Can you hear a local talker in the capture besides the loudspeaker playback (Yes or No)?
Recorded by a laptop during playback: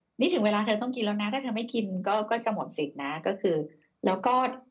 No